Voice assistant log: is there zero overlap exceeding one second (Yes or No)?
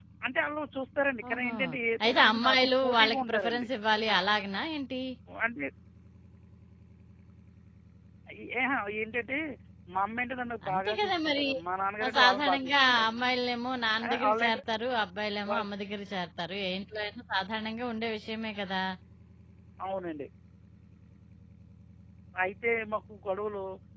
No